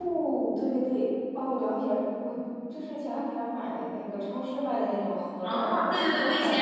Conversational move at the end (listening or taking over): taking over